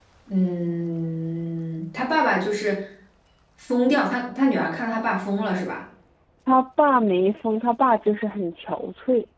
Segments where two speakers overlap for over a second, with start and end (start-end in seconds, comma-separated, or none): none